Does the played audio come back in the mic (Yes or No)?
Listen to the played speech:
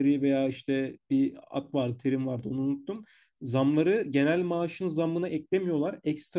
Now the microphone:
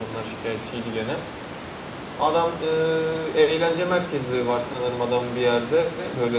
No